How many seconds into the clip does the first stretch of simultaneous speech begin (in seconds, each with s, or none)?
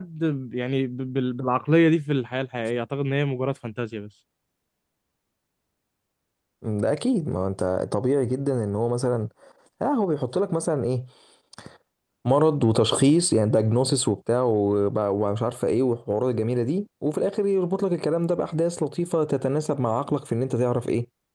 none